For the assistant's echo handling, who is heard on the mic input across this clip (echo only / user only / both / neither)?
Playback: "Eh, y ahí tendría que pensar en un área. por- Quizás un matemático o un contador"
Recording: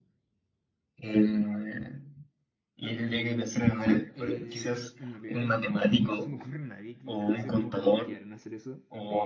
both